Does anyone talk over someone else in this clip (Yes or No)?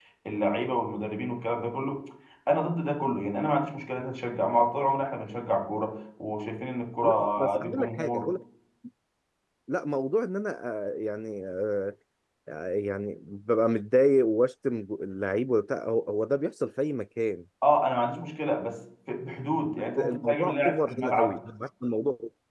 Yes